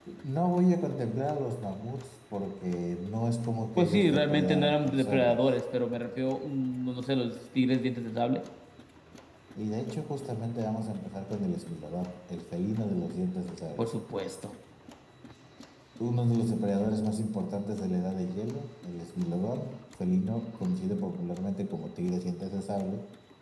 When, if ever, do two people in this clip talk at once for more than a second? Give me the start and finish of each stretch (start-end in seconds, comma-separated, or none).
3.8-5.5